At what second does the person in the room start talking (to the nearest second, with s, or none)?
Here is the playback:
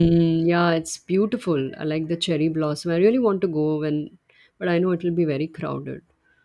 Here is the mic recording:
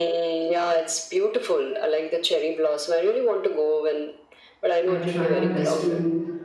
5 s